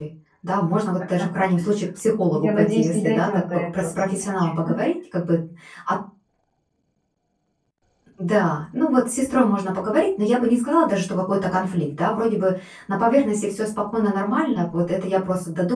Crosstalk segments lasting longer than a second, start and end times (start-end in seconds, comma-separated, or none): 2.4-4.5